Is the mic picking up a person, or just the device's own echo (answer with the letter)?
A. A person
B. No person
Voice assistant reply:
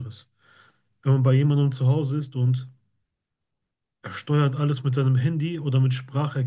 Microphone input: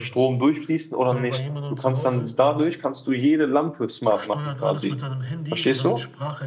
A